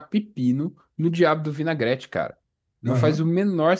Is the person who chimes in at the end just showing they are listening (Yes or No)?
Yes